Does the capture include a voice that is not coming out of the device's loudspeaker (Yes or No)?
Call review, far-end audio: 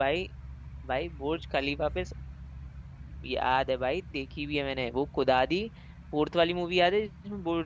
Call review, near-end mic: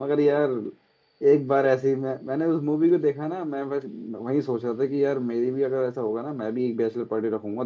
Yes